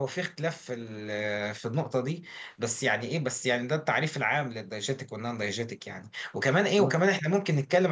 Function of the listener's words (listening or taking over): listening